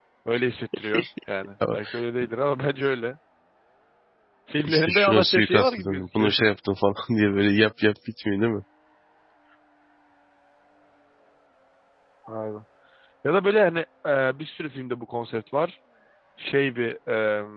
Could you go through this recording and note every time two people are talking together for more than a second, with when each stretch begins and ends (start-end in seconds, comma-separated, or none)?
4.6-6.3